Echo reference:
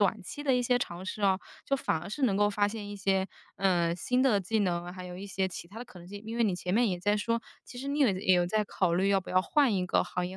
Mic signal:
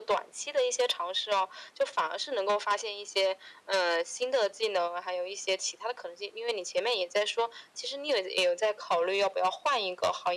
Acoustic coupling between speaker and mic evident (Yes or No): Yes